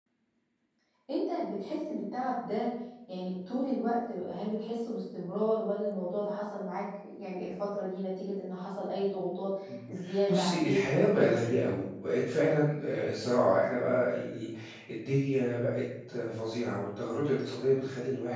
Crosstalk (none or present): present